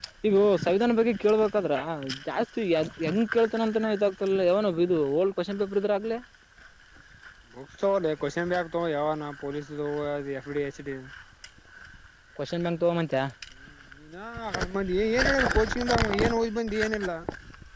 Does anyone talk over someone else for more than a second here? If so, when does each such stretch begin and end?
none

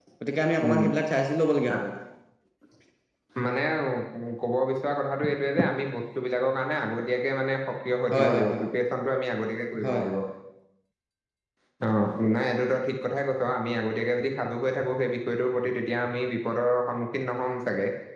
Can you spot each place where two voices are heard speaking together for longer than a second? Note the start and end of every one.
none

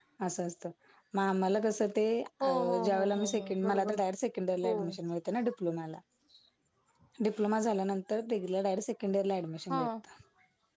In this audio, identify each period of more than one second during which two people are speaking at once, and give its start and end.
2.4-4.0

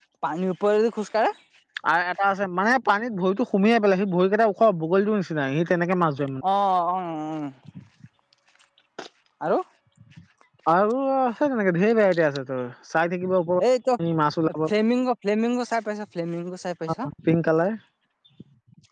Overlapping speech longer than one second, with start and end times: none

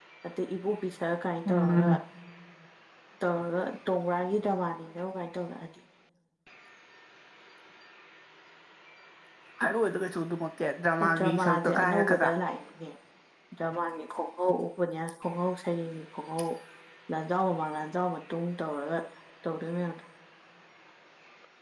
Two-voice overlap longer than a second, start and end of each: 11.0-12.3

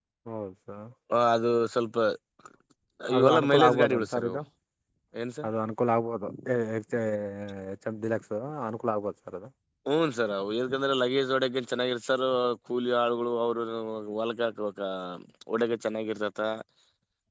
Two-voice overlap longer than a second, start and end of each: 3.2-4.4

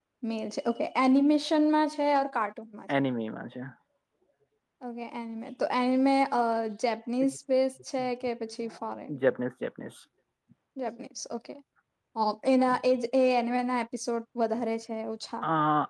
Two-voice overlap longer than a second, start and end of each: none

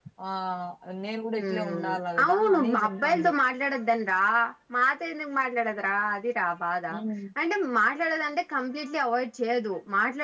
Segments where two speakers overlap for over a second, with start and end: 1.5-3.3

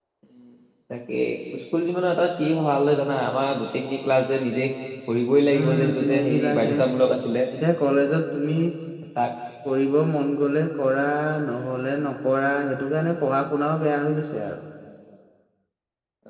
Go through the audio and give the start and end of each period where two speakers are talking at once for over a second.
5.5-6.7

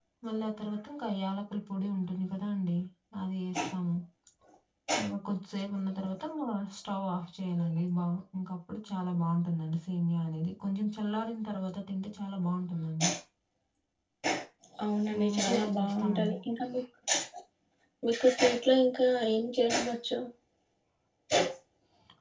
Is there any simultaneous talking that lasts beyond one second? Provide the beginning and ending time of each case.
15.2-16.4

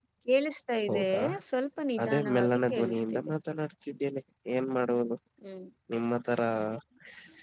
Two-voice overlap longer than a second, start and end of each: 2.0-3.3

